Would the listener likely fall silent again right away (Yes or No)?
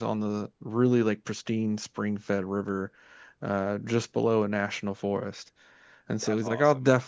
Yes